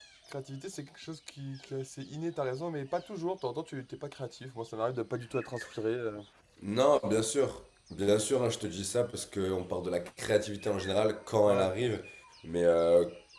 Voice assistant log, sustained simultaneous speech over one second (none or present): none